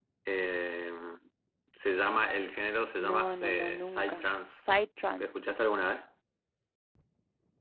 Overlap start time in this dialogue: 3.0 s

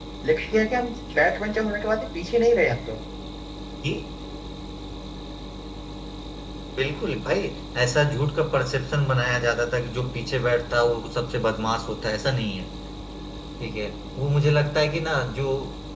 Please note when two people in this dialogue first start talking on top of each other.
none

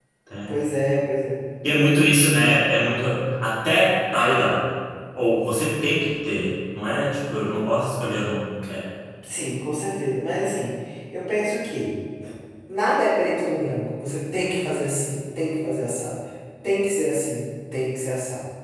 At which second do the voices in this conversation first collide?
none

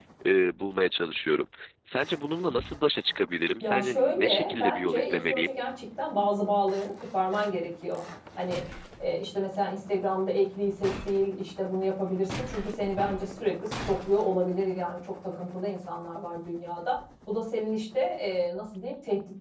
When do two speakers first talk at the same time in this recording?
3.6 s

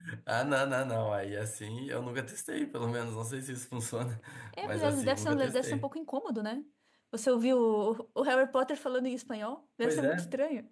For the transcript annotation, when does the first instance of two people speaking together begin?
4.6 s

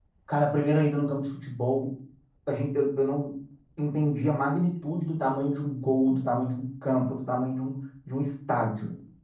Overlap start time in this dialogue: none

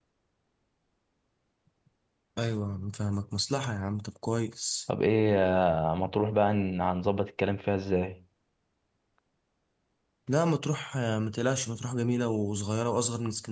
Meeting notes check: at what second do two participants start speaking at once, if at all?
none

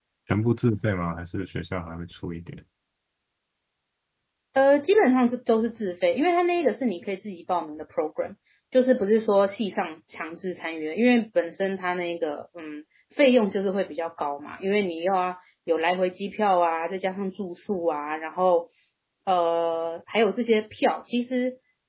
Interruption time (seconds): none

